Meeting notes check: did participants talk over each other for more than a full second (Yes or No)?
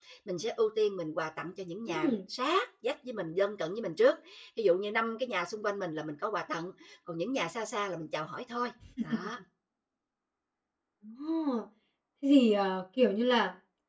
No